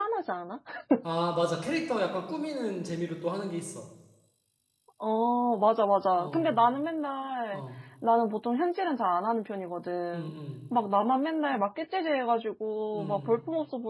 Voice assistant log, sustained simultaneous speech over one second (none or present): none